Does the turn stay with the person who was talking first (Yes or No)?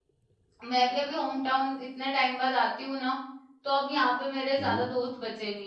Yes